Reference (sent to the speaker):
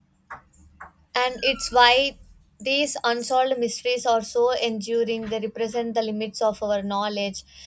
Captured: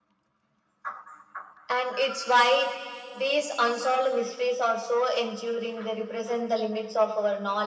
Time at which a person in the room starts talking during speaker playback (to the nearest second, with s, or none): none